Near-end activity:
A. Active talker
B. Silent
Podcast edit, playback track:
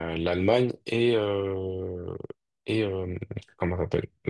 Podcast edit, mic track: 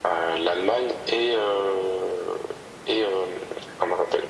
B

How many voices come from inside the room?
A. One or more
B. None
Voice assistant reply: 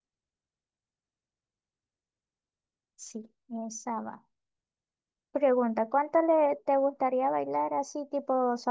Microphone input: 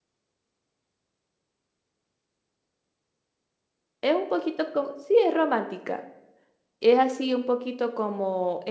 A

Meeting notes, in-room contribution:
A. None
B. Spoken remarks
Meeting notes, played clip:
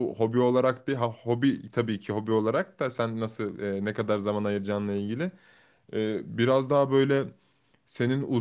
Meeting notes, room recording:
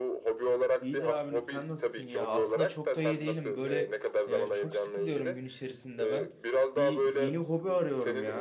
B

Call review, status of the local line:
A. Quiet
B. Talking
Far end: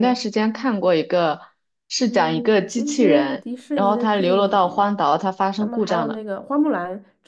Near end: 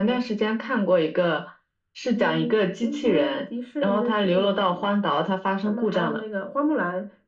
A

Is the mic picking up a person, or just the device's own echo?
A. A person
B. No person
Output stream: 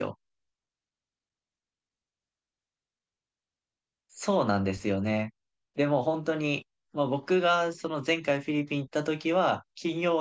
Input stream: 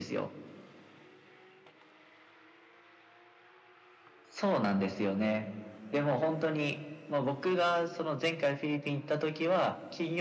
B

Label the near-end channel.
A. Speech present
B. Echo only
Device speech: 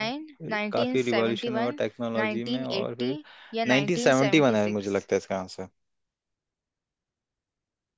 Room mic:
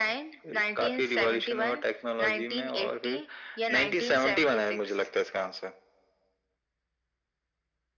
B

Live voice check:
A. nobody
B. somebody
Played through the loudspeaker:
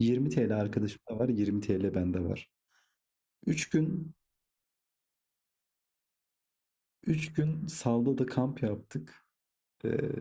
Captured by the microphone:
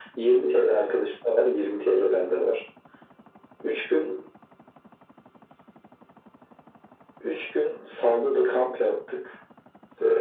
A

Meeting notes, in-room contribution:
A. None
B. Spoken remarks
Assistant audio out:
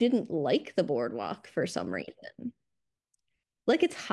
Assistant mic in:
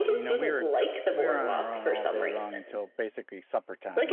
B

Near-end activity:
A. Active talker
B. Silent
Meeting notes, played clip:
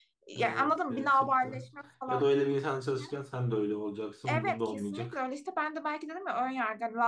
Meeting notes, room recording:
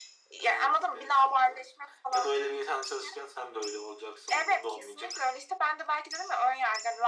B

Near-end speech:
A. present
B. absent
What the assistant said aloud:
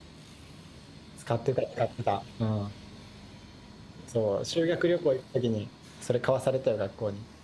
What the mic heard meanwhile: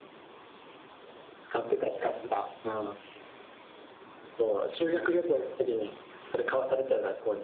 B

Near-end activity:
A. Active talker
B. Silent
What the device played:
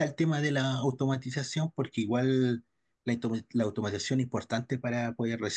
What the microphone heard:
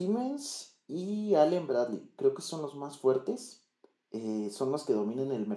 A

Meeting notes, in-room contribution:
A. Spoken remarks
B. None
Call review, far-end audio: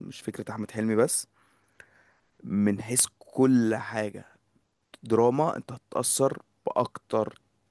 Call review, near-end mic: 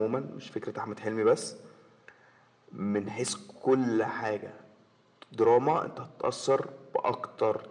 B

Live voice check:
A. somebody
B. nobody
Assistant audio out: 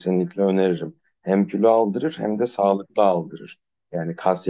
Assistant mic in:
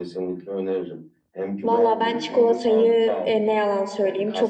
A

